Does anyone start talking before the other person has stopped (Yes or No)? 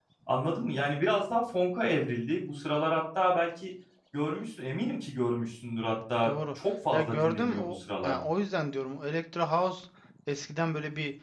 Yes